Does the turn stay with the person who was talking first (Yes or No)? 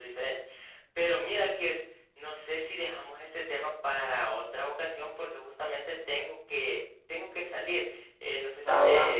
Yes